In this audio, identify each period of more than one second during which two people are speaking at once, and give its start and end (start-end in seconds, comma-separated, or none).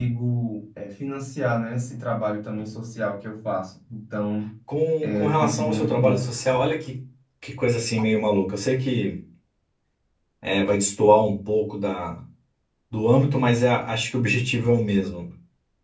5.0-6.3